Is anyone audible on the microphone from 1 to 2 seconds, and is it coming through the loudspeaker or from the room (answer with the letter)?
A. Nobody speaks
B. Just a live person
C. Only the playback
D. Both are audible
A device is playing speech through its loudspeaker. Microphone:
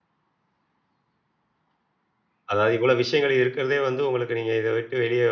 A